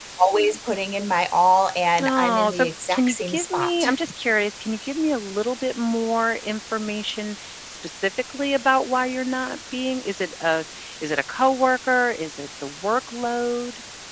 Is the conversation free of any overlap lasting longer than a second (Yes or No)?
No